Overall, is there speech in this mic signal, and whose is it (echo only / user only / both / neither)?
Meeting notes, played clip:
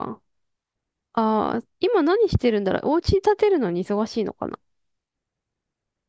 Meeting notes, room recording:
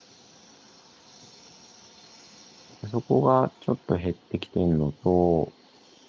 user only